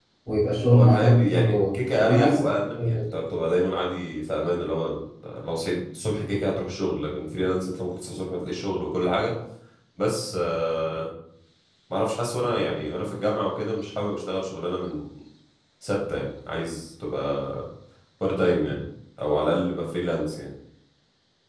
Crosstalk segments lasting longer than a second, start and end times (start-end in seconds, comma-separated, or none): 0.7-2.4